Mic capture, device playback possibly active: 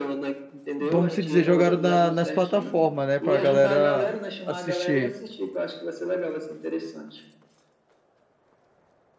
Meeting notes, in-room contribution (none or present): present